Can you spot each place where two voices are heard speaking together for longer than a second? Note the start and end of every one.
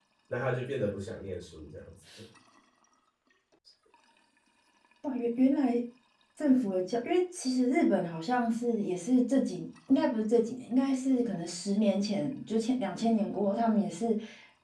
none

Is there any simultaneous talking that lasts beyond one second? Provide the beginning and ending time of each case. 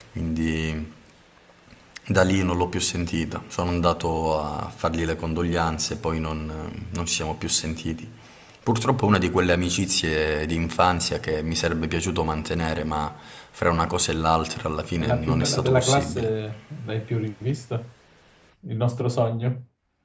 15.0-16.4

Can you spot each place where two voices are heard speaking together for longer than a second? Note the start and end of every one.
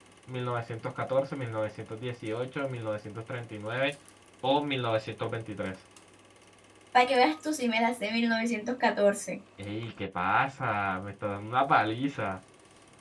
none

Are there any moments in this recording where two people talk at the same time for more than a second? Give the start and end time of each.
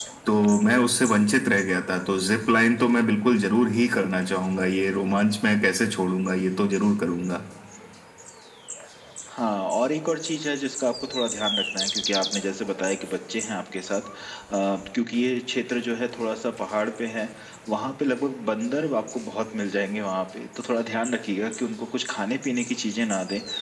none

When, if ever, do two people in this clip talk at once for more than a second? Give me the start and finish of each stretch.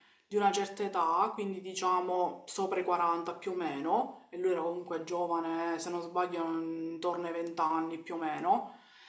none

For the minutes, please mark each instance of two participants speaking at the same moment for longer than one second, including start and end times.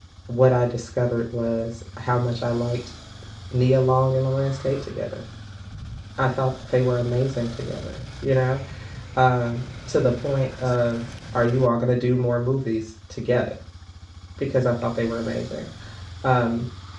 none

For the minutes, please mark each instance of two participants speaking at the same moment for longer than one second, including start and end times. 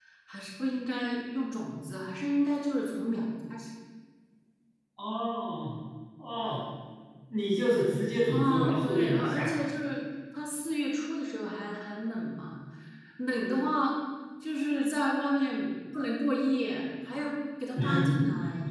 8.3-9.7

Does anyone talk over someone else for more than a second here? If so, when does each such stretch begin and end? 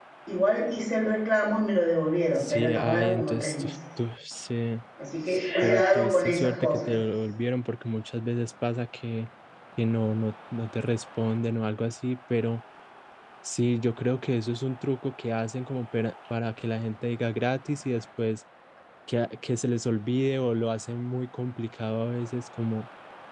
2.4-3.7, 5.6-6.9

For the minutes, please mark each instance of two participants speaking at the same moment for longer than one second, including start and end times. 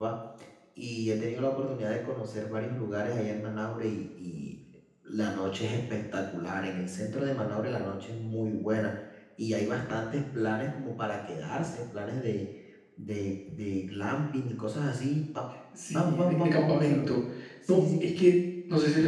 15.9-17.1

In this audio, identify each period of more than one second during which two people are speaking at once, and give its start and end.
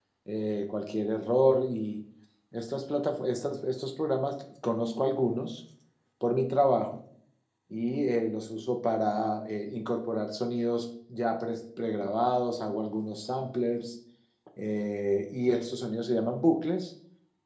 none

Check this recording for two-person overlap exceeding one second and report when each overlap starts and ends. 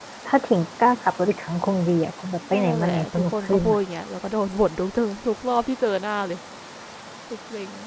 2.5-3.8

